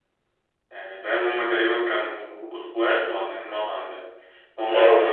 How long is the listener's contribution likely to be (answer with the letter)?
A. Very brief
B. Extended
A